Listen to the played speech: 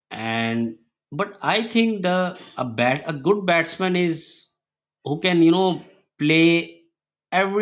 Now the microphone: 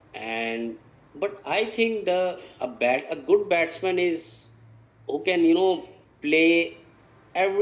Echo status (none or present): present